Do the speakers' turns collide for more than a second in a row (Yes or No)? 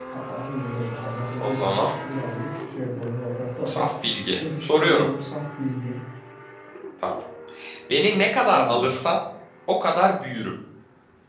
Yes